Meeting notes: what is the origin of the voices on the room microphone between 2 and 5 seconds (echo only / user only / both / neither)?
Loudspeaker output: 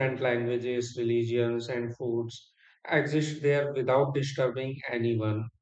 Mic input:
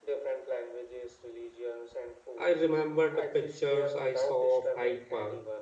both